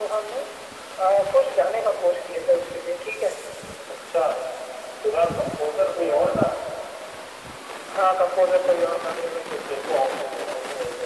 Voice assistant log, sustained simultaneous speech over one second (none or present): none